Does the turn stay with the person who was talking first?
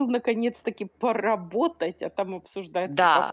No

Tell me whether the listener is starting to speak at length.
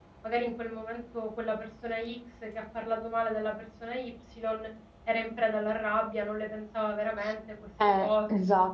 Yes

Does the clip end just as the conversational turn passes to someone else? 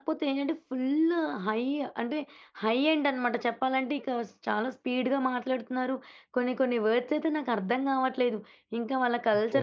No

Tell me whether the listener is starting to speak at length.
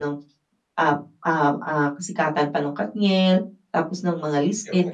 No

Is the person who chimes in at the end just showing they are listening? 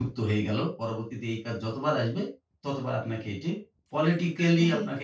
Yes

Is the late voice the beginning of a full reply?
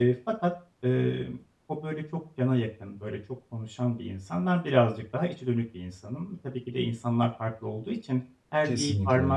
No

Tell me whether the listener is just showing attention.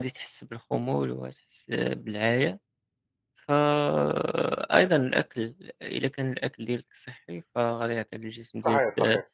Yes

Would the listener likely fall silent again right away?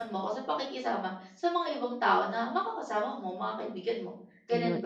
No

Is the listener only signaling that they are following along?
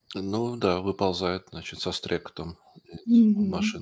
No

